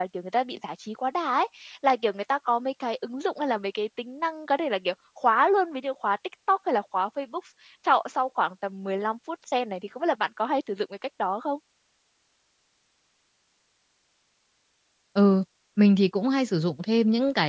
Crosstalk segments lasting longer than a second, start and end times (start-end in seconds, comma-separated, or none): none